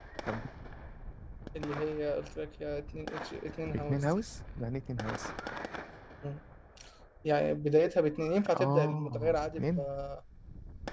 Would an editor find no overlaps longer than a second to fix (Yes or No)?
No